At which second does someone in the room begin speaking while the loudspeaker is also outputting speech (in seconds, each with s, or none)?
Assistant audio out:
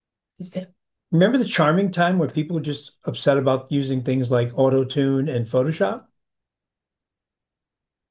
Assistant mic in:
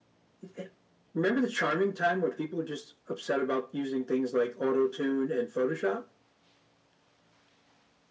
none